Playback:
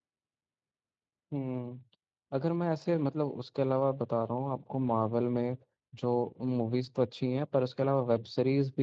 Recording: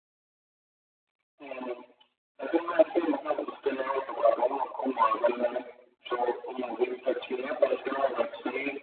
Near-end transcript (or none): none